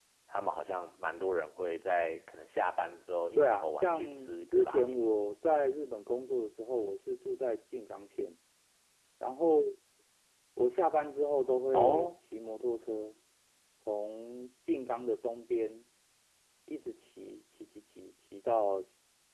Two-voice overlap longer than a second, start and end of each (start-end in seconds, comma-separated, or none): 3.4-5.0